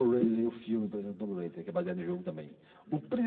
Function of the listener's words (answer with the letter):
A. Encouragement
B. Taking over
A